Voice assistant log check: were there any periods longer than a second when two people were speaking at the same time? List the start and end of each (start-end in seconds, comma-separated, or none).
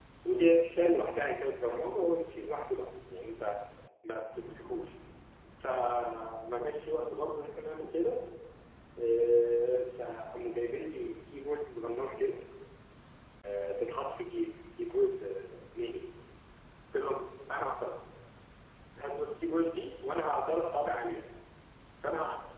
none